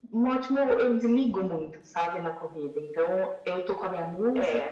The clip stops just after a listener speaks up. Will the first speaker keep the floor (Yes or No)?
Yes